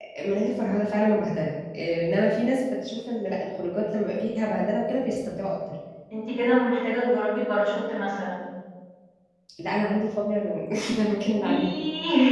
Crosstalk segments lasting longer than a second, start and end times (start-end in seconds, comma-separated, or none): none